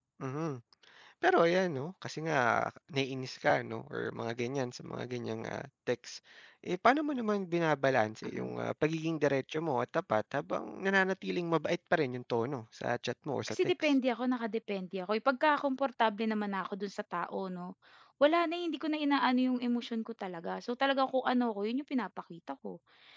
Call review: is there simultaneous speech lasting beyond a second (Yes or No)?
No